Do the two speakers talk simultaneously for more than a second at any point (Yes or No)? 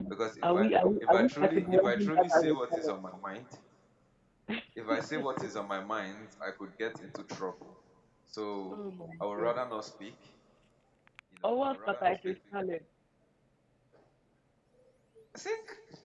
Yes